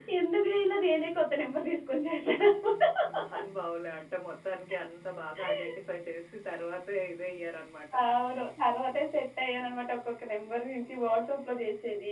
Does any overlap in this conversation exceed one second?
No

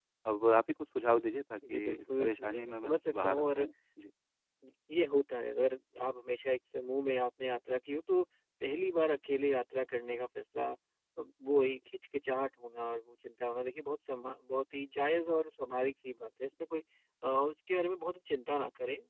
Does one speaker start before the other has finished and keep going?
Yes, from 1.6 s

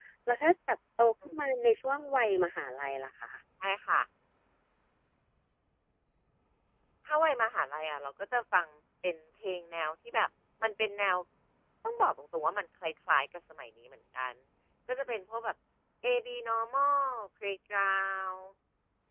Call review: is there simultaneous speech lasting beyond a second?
No

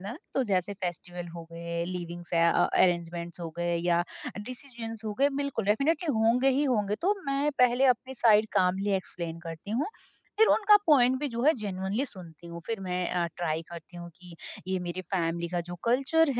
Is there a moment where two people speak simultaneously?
No

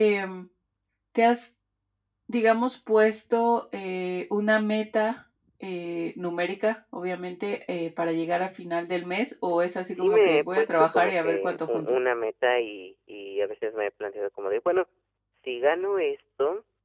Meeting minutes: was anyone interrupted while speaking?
Yes, from 9.9 s

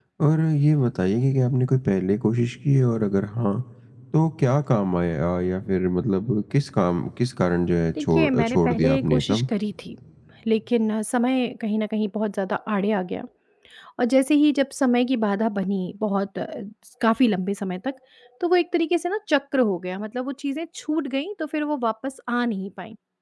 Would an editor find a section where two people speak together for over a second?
Yes, from 8.0 s

